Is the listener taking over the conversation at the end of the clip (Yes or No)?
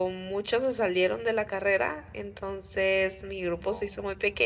No